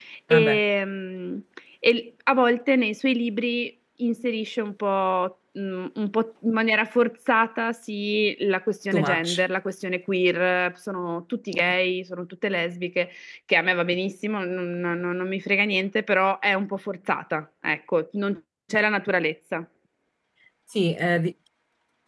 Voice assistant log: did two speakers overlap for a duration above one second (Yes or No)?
No